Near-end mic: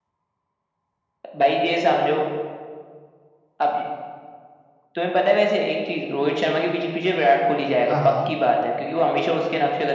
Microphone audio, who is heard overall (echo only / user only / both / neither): both